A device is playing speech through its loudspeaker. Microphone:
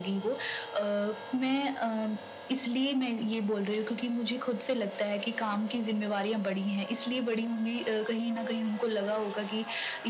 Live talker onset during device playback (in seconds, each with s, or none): none